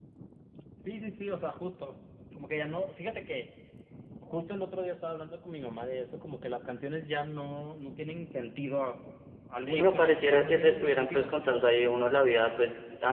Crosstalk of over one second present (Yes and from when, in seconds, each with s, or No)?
Yes, from 9.6 s